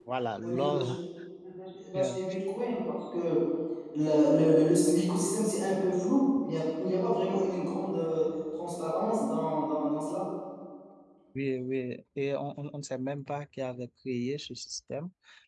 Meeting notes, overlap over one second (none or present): none